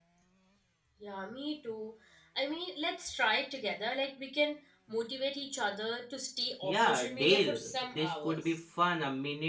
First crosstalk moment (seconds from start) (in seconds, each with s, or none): 6.6 s